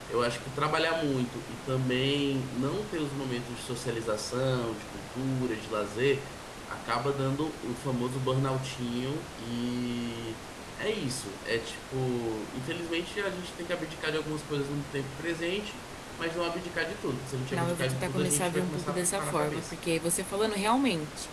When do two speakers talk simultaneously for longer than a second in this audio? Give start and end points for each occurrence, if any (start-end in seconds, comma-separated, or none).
17.5-19.7